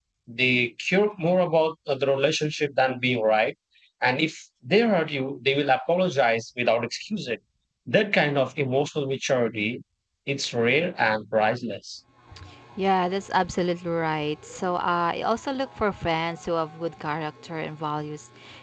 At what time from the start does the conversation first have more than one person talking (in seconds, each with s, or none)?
none